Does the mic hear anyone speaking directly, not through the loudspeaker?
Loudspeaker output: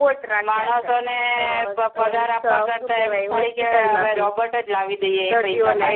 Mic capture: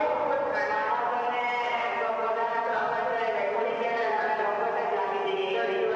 No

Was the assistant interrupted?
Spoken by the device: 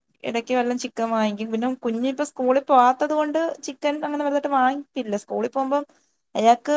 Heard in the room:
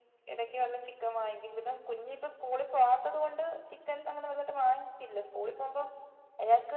No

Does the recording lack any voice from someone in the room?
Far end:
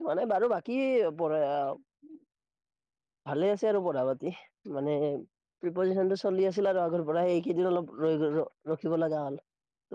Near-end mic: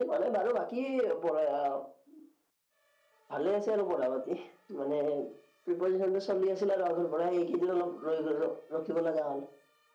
Yes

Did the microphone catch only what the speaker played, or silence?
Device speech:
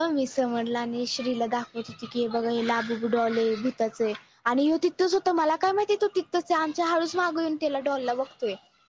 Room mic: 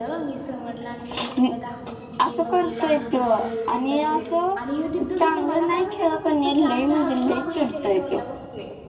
No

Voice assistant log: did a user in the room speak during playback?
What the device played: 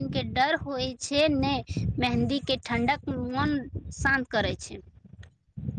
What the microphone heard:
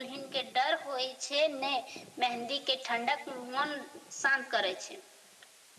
No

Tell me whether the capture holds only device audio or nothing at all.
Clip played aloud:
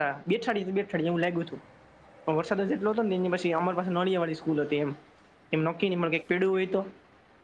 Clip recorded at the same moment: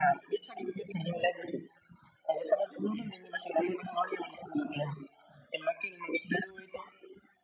Yes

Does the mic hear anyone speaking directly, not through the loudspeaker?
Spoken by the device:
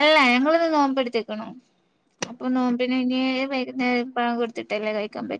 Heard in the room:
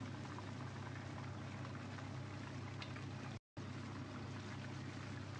No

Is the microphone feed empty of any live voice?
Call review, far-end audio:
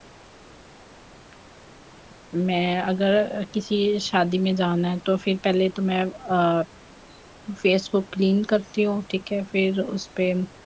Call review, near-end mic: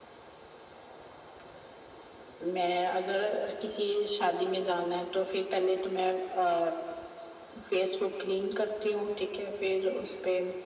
Yes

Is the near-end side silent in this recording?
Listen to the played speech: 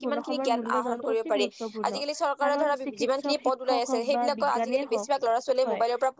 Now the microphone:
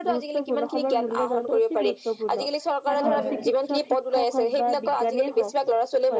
No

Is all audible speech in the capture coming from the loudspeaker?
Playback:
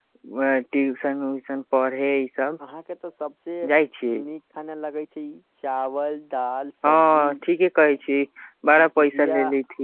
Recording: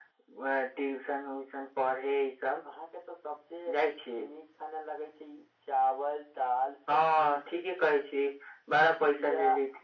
Yes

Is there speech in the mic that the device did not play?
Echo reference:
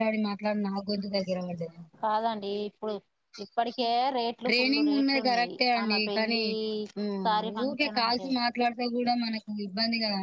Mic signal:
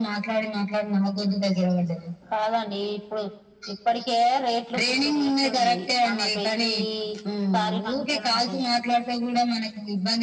No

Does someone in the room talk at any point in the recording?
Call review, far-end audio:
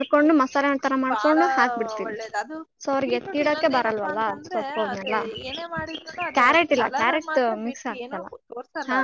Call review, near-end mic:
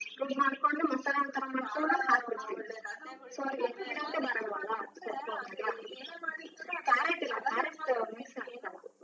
Yes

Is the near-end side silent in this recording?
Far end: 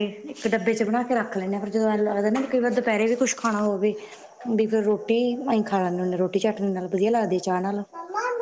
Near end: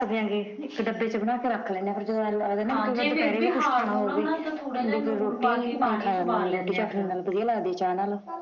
No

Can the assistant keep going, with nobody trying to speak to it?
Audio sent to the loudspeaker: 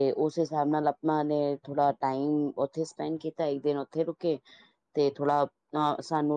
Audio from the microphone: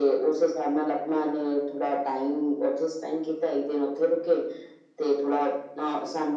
Yes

